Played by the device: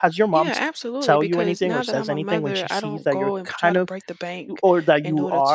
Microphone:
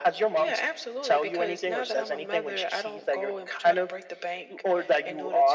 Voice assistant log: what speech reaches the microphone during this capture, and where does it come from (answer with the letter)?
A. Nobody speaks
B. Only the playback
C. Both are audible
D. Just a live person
B